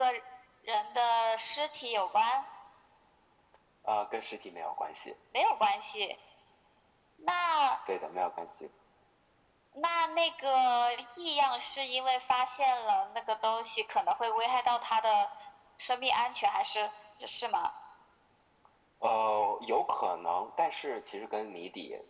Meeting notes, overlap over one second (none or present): none